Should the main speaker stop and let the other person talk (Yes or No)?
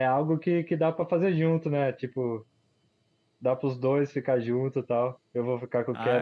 No